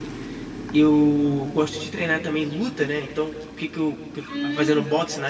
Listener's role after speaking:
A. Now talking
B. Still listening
B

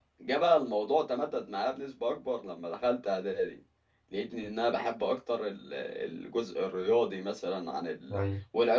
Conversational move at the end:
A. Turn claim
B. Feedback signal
B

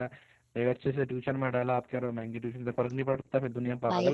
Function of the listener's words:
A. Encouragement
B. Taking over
B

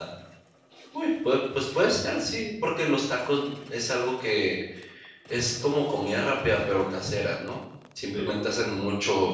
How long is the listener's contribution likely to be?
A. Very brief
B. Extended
A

